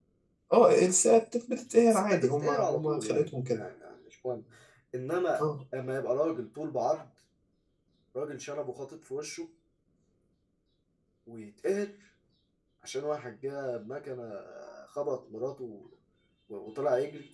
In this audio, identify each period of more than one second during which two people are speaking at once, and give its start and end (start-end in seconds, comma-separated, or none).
1.9-3.6